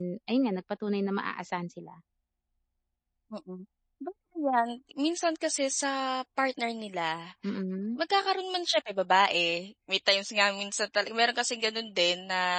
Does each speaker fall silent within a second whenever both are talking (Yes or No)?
Yes